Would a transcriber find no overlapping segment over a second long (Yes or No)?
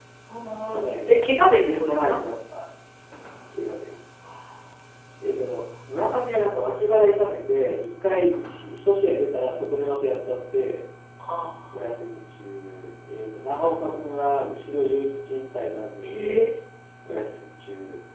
Yes